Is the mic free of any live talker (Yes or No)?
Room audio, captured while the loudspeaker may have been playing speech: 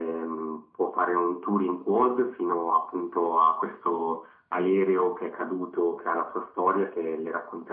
Yes